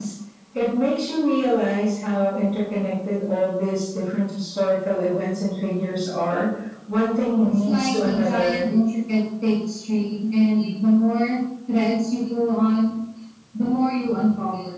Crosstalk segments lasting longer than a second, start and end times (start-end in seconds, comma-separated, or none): 7.4-8.7